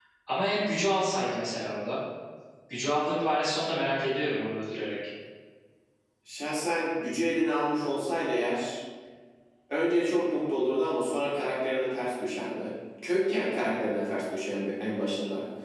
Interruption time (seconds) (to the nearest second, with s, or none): none